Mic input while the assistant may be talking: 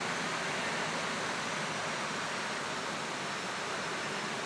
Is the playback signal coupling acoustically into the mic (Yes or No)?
No